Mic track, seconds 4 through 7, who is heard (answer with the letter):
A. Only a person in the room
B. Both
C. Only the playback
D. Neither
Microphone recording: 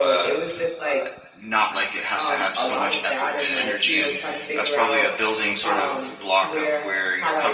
B